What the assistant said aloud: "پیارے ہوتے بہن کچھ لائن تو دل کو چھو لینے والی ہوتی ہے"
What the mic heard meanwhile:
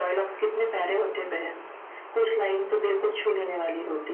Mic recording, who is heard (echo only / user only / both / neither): echo only